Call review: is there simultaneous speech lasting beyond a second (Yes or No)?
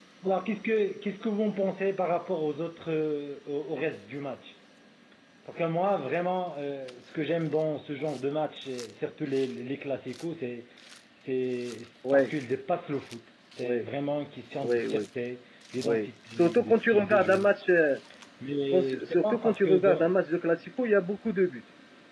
Yes